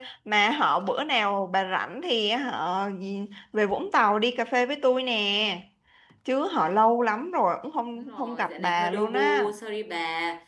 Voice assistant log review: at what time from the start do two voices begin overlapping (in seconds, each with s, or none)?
8.0 s